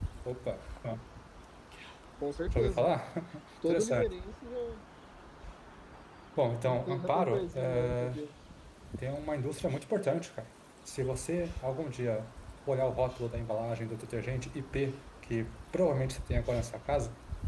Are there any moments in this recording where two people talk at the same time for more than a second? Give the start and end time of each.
6.6-8.2

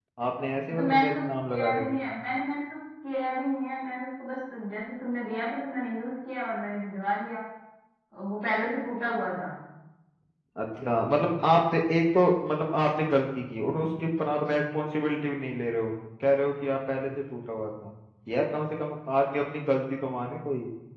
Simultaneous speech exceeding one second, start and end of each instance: 0.7-1.9

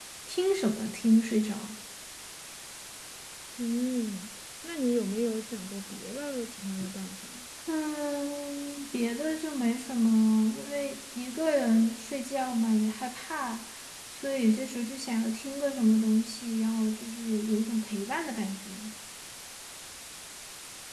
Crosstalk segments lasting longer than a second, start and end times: none

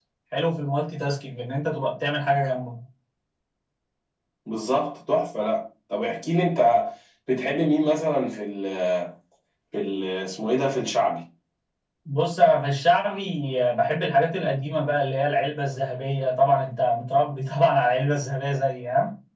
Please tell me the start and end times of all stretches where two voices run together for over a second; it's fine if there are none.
none

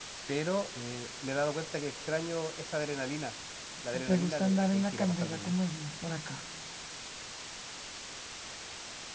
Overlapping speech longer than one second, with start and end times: 4.1-5.5

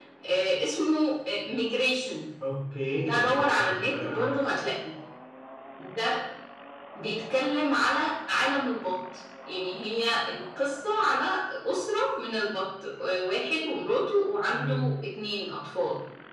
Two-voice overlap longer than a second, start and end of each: 3.0-4.3

